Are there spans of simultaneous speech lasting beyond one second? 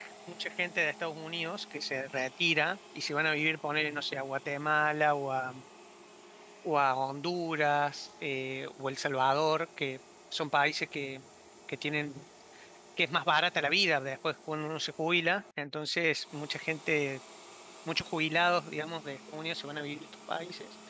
No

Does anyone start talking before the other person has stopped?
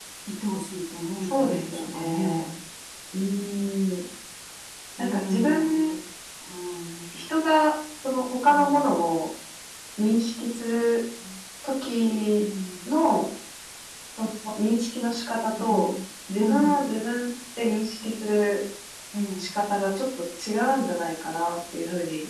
Yes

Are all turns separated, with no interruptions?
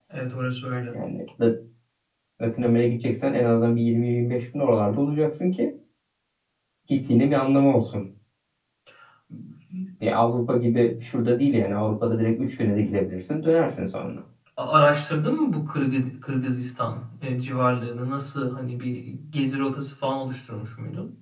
Yes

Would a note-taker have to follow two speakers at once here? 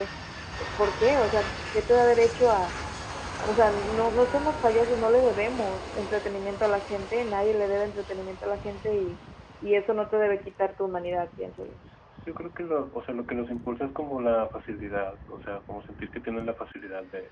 No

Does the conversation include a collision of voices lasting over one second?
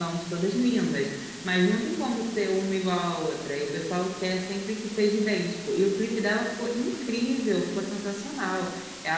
No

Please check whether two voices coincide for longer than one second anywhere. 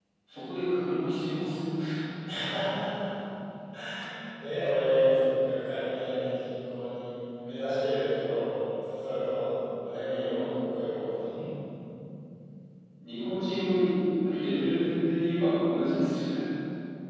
No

